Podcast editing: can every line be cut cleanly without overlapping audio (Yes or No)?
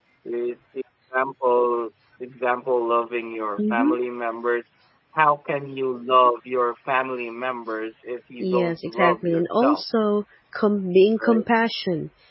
No